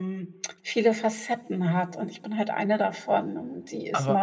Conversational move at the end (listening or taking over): listening